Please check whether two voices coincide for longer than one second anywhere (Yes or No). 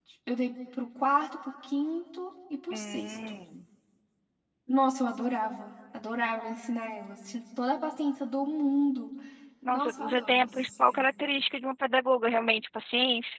Yes